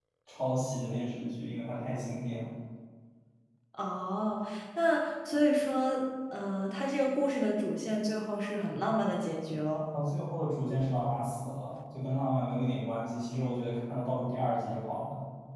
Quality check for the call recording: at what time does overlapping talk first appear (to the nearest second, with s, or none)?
none